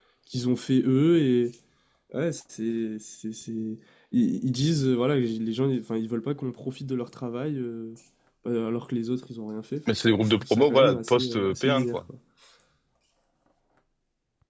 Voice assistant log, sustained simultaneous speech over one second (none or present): present